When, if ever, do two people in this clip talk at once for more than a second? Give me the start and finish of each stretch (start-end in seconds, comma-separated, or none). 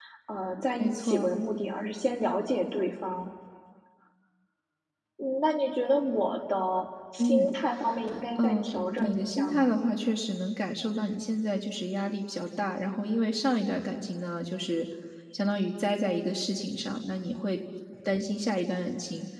8.4-9.7